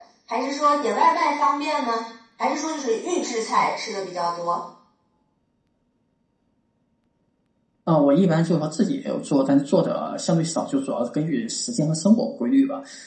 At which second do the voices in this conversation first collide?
none

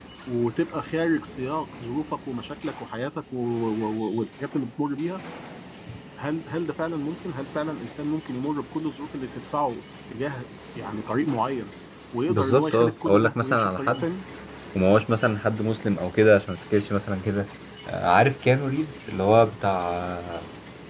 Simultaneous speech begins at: 12.3 s

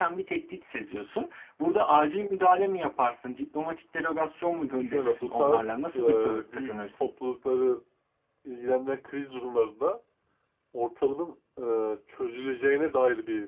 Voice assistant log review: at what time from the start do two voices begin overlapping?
4.7 s

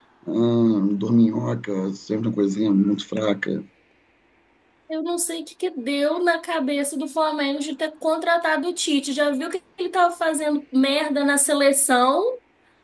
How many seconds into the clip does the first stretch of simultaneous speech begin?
none

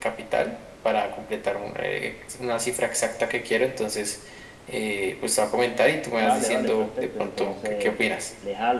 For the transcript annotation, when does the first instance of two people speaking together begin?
6.2 s

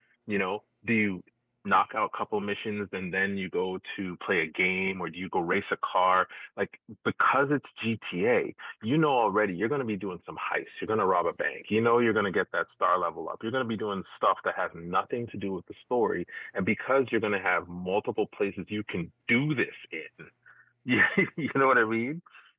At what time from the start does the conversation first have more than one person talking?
none

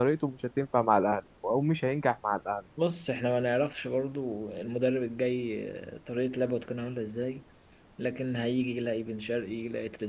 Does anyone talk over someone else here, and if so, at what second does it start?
none

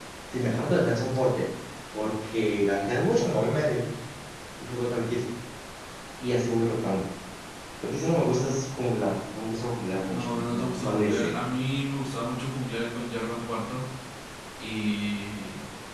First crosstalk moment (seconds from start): 10.1 s

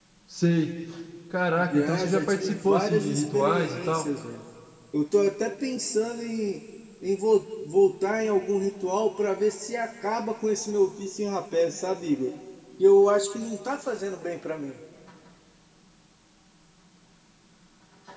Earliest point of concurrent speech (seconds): 1.7 s

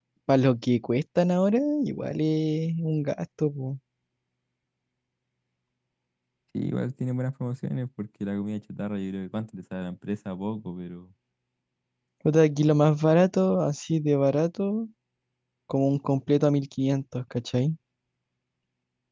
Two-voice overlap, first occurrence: none

